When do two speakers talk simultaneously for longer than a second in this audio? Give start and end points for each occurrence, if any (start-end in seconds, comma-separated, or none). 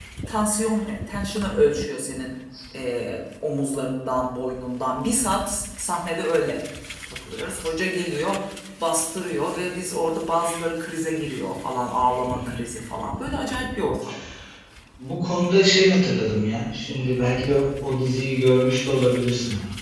none